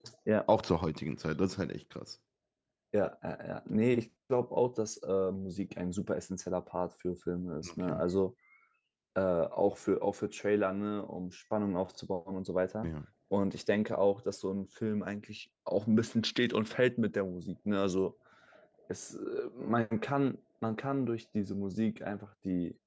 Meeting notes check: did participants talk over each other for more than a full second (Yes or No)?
No